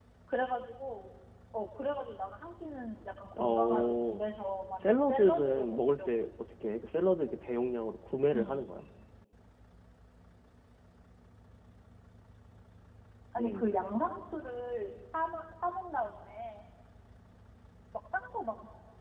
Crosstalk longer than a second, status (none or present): present